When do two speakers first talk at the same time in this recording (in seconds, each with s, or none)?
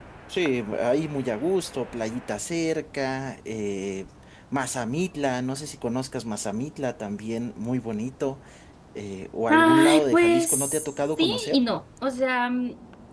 9.5 s